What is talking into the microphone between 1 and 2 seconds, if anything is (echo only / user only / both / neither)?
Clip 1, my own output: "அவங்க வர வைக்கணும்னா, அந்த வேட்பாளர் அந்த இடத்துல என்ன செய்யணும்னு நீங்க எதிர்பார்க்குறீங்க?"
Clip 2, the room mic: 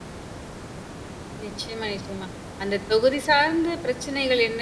user only